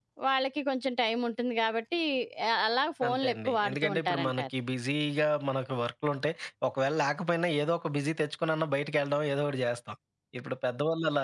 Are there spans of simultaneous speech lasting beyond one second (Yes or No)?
Yes